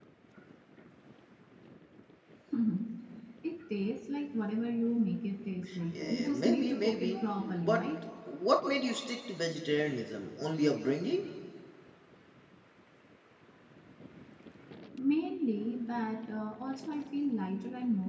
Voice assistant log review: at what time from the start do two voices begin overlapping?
5.9 s

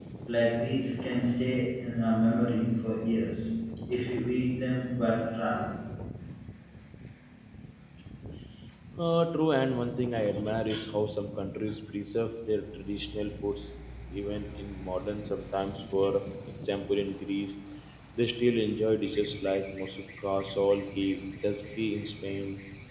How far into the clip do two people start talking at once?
none

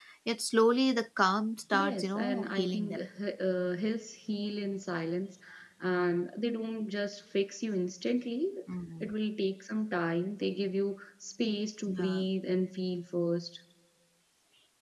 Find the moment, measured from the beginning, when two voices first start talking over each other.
1.7 s

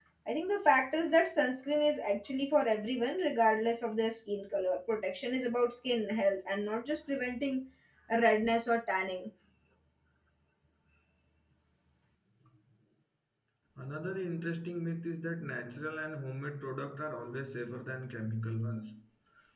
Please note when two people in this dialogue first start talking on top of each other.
none

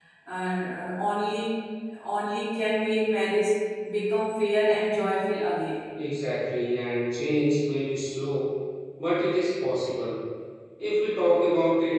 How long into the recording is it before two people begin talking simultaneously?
none

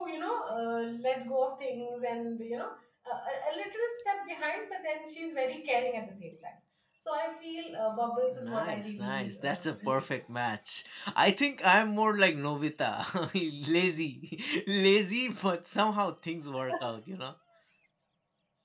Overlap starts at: 8.3 s

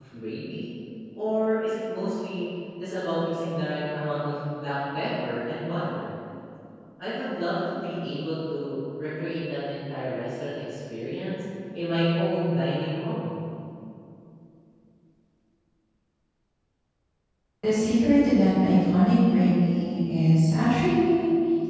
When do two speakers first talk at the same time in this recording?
none

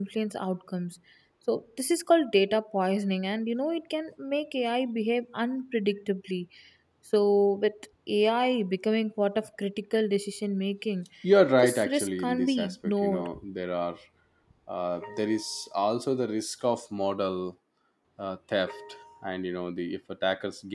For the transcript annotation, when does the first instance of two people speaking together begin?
11.6 s

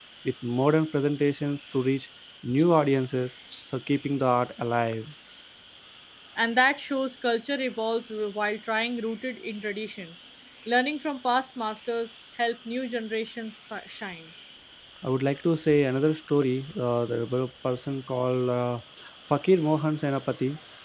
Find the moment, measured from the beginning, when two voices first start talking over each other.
none

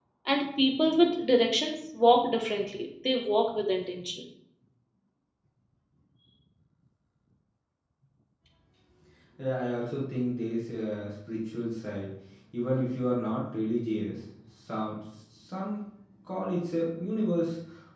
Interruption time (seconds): none

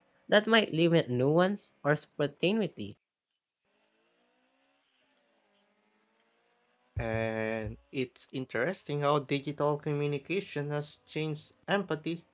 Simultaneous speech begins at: none

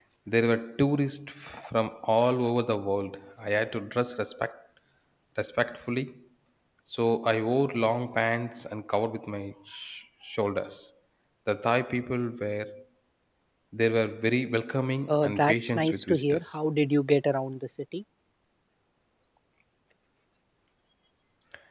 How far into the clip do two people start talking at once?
15.1 s

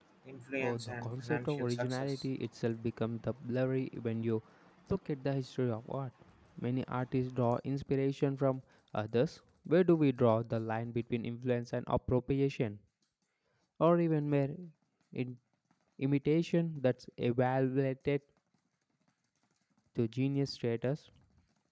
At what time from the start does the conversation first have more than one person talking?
0.6 s

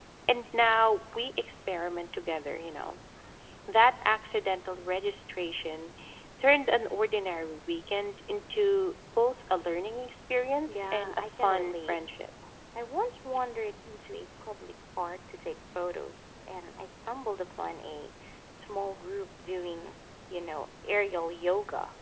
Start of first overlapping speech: 10.7 s

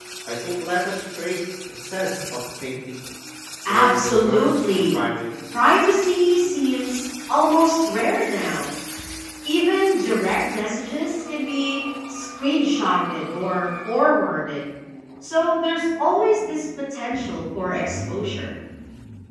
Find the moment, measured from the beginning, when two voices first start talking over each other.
3.7 s

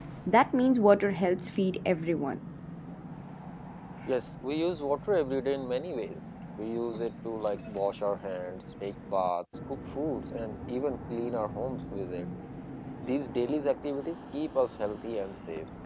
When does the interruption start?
none

